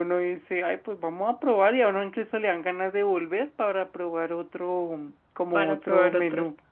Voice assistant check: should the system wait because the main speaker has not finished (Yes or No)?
No